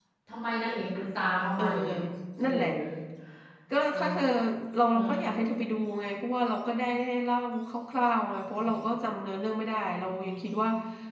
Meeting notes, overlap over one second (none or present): none